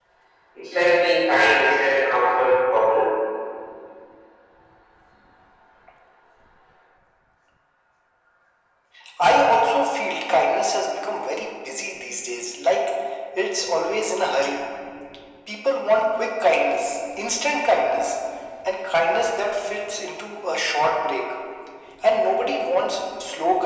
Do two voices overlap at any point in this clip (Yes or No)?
No